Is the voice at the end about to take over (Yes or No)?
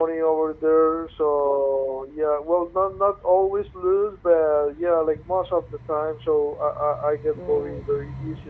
No